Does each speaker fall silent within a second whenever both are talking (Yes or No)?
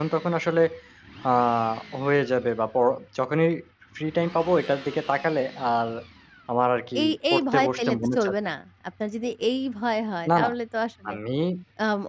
No